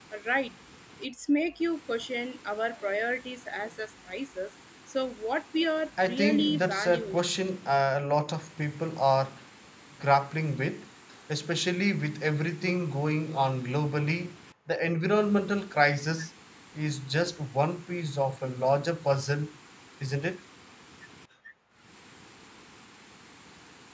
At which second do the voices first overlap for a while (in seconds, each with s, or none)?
6.0 s